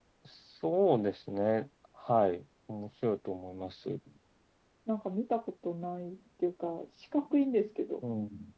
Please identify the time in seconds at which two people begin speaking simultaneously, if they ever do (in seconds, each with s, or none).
none